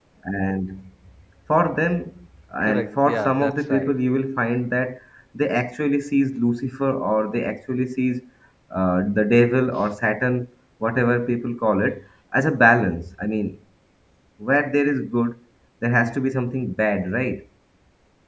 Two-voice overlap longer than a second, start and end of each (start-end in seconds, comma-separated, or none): 2.6-3.9